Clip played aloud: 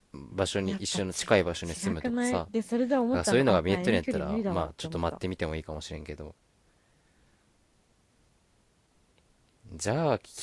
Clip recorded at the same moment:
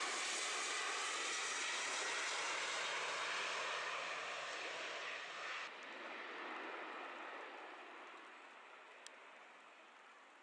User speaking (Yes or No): No